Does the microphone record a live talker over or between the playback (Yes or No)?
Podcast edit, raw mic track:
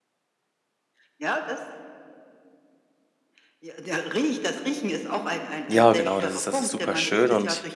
Yes